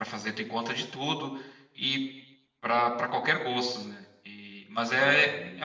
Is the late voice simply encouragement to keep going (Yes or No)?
Yes